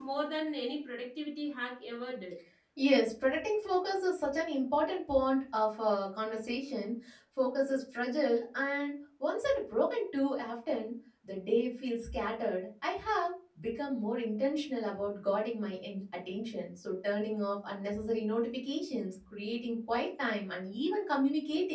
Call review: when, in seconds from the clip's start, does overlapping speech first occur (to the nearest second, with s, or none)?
none